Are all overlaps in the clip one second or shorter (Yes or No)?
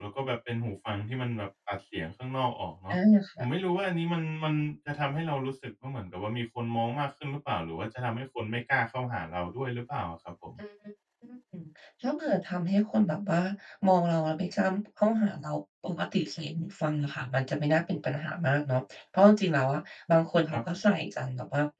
Yes